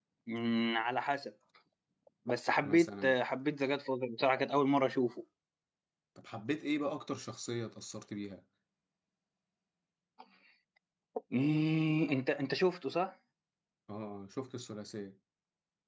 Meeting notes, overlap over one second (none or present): none